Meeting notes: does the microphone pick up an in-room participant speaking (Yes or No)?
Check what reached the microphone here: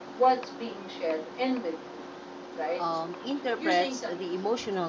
Yes